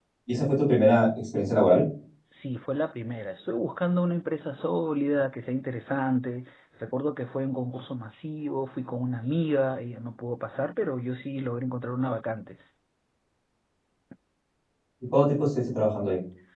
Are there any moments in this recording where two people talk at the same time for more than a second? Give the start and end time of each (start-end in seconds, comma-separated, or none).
none